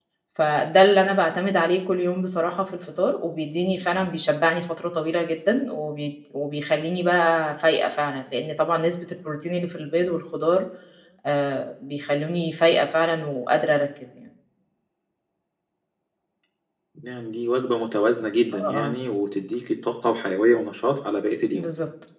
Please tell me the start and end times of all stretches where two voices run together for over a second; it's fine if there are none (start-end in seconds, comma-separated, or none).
none